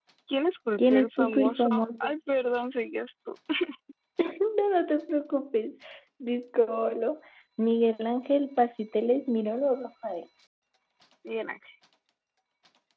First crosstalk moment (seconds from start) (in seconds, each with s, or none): 0.8 s